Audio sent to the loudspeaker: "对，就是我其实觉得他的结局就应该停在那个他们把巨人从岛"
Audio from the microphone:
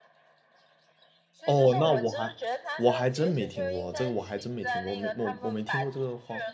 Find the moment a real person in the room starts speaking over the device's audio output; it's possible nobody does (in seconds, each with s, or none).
1.4 s